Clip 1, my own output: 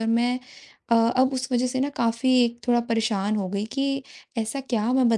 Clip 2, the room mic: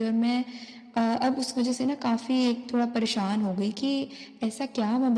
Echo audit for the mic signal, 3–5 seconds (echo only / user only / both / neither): echo only